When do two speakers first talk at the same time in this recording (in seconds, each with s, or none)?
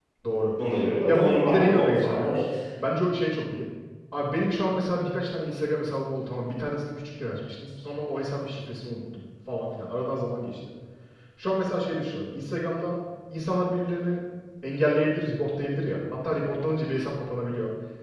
1.1 s